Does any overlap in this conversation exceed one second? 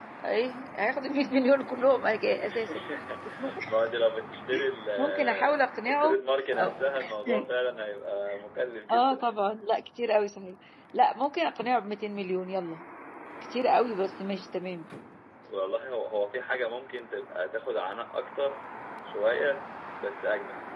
Yes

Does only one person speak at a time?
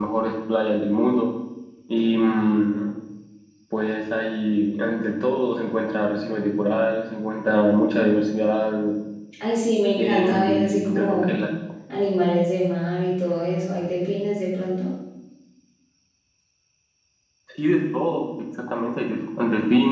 No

